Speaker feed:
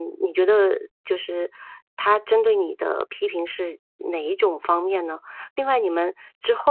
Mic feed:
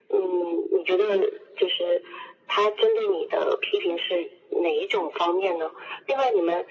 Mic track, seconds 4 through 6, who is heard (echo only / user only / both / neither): echo only